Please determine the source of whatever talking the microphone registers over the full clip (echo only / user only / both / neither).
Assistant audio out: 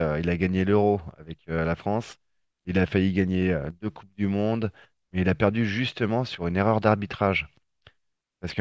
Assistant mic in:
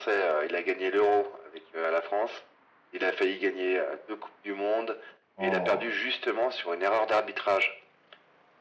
both